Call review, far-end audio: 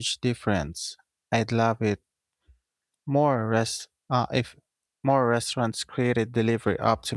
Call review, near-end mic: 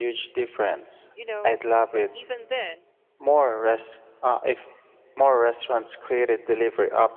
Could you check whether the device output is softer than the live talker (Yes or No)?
No